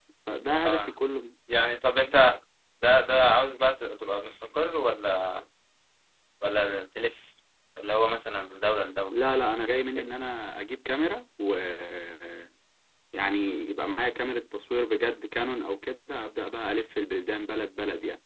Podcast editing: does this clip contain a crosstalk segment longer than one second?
No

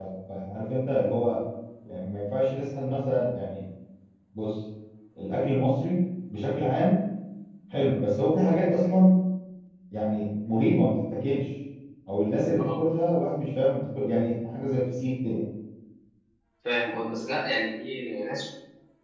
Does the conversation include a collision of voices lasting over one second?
No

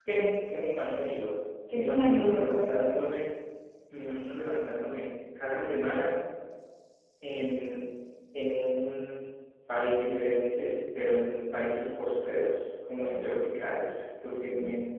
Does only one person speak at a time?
No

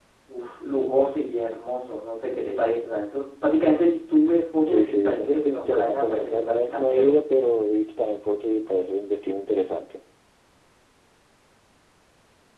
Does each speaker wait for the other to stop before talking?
No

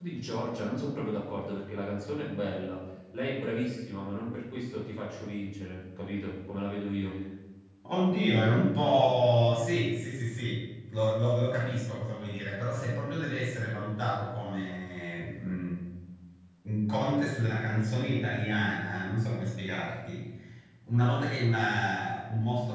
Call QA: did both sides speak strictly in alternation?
Yes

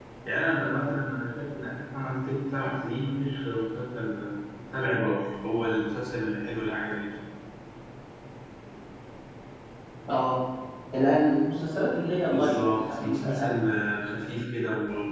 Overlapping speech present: Yes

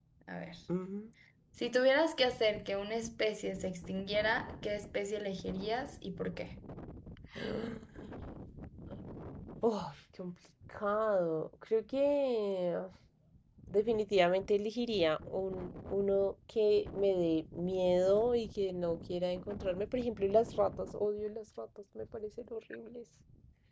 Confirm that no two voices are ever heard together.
Yes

